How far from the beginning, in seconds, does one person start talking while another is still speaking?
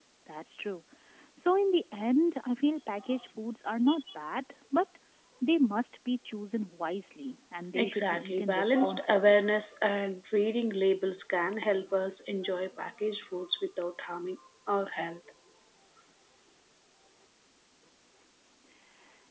7.7 s

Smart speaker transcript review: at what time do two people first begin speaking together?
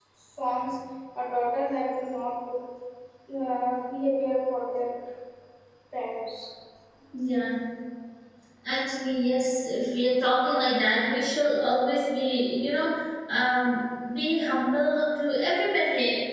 none

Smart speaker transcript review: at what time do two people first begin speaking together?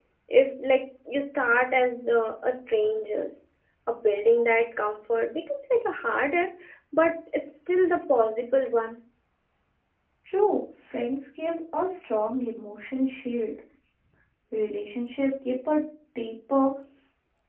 none

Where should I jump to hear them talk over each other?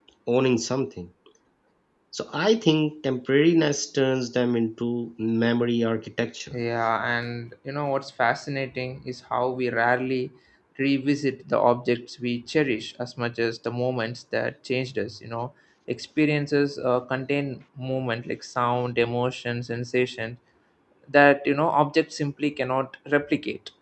none

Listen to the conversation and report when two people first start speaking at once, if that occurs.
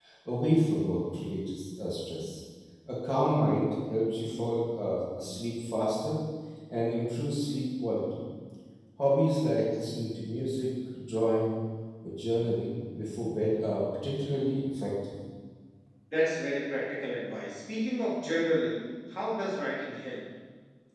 none

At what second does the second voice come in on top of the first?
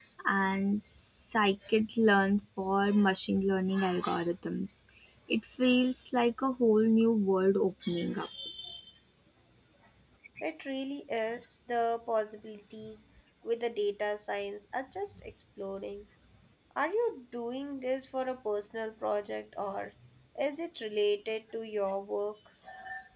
none

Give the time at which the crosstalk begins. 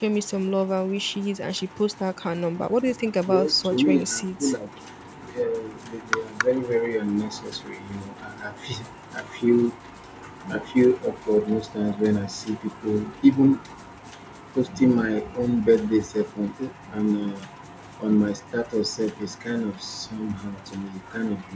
3.3 s

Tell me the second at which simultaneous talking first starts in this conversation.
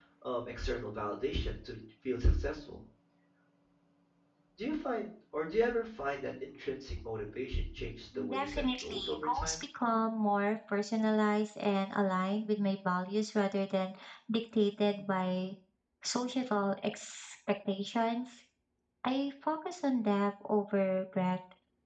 8.1 s

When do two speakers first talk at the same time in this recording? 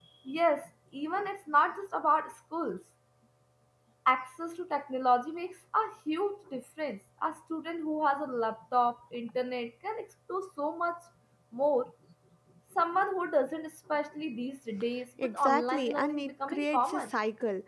15.2 s

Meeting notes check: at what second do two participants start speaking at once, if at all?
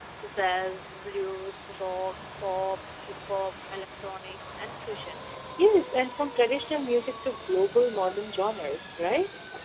none

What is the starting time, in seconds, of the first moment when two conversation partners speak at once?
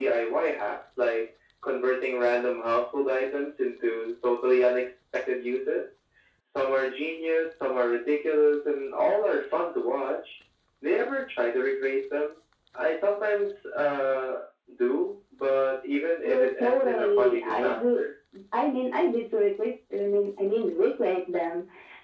16.2 s

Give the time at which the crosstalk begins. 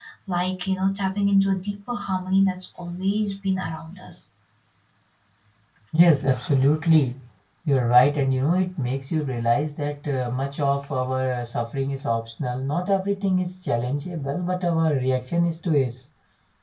none

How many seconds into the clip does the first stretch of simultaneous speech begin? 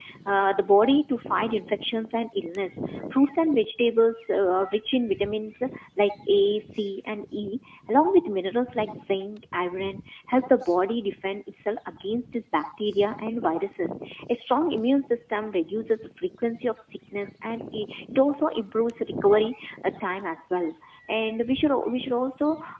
none

